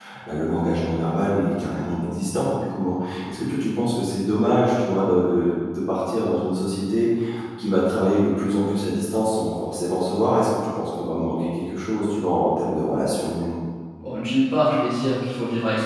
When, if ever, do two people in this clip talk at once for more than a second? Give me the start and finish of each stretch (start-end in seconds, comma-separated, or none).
none